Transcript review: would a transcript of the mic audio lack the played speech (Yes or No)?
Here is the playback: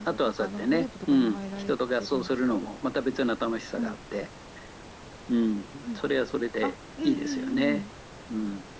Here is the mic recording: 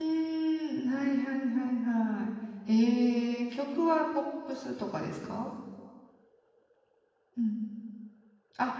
Yes